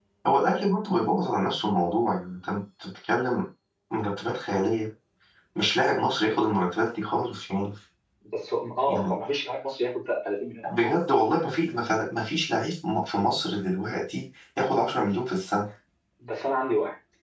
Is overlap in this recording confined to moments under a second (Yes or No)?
Yes